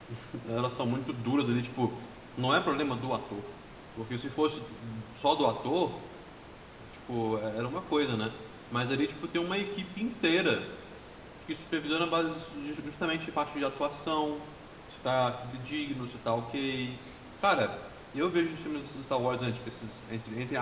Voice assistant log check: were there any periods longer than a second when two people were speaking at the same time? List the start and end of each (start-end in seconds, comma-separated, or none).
none